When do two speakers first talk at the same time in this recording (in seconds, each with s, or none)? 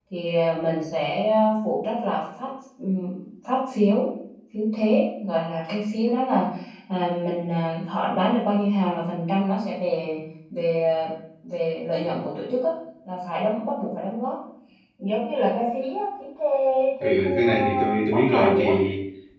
17.0 s